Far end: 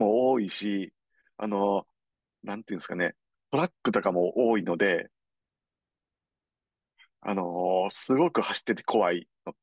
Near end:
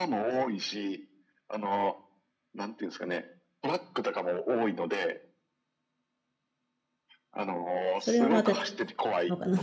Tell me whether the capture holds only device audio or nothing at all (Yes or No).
No